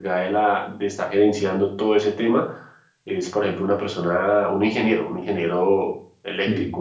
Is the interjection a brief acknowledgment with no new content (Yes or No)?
Yes